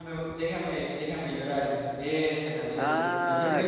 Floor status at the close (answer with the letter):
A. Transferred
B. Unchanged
A